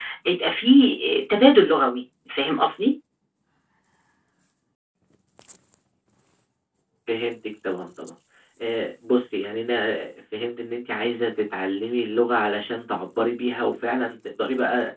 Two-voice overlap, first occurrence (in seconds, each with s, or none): none